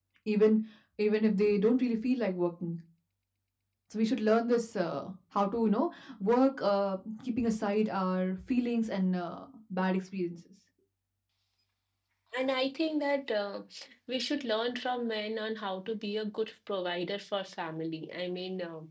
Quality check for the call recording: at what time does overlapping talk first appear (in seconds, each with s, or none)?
none